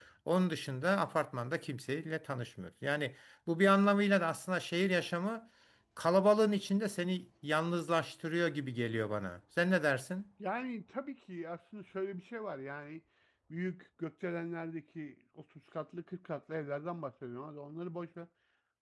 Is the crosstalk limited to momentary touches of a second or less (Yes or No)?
Yes